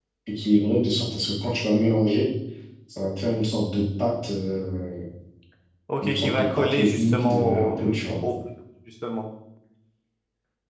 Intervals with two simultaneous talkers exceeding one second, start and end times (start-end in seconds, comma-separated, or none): 6.0-7.8